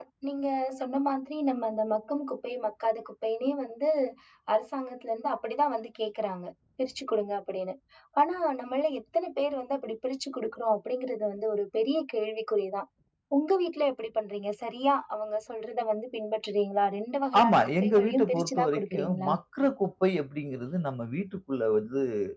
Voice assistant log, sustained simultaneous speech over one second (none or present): present